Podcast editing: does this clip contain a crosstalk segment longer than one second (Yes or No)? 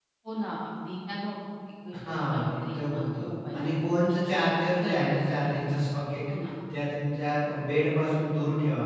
Yes